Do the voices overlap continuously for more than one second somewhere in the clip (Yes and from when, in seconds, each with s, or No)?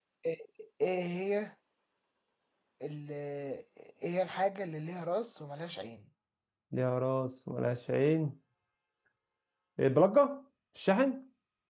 No